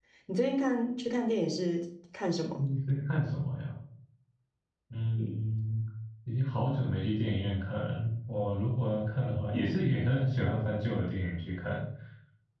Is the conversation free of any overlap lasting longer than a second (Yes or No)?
Yes